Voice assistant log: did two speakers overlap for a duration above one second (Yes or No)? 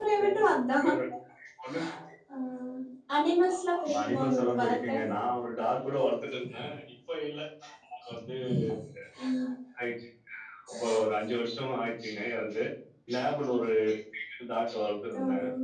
Yes